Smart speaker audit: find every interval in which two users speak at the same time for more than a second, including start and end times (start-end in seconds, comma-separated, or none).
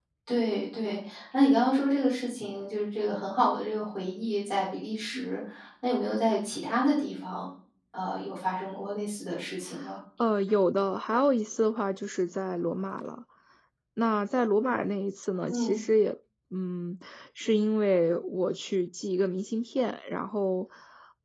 none